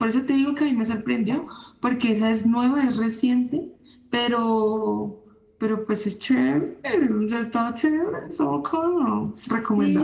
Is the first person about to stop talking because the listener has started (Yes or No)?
Yes